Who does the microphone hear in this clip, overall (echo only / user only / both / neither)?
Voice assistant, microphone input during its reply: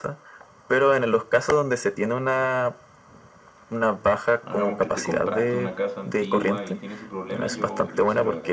both